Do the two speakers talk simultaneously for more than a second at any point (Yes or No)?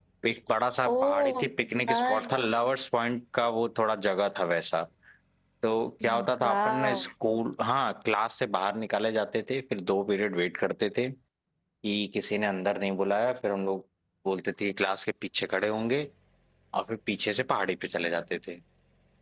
No